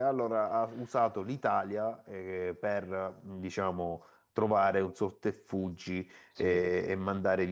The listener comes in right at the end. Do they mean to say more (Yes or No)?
No